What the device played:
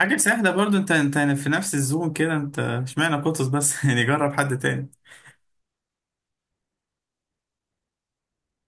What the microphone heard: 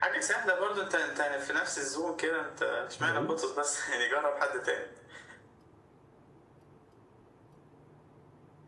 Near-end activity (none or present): present